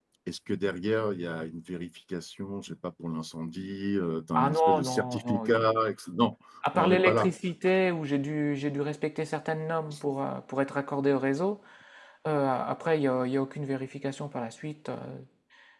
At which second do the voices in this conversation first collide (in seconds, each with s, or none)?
4.3 s